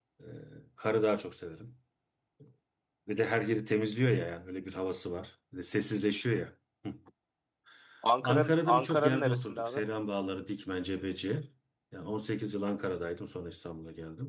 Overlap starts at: 8 s

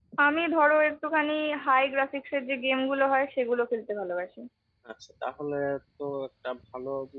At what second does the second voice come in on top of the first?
none

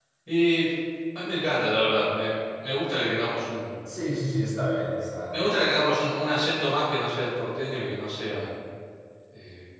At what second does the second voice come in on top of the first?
none

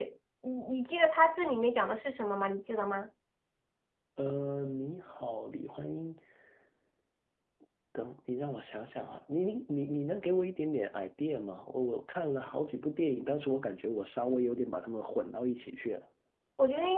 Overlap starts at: none

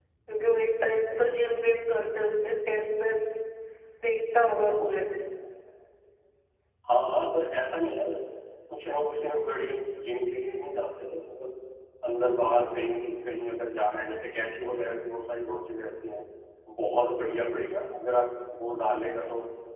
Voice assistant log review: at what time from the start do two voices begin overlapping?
none

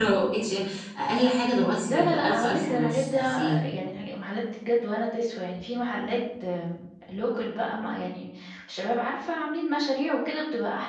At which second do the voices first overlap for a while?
2 s

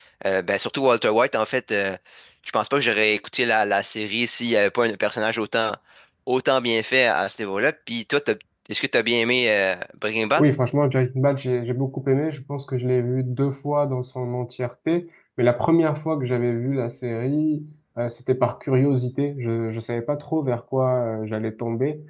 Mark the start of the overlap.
none

